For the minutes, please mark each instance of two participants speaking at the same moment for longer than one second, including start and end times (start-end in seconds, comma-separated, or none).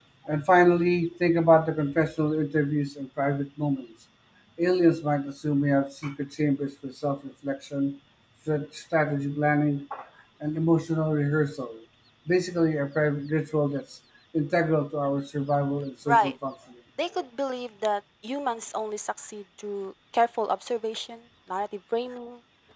none